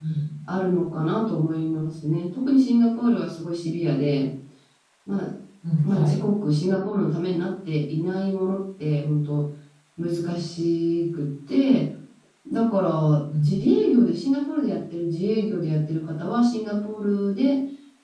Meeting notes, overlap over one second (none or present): none